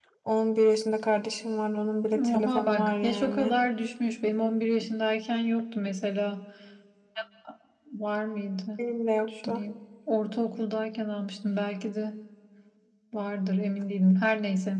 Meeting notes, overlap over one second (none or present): present